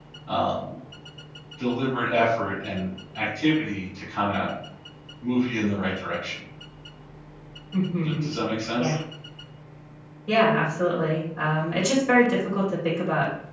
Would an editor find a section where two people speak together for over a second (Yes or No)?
No